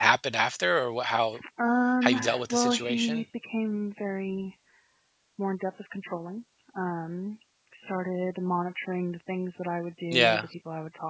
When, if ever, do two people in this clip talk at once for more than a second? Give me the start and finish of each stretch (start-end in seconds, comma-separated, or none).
2.0-3.2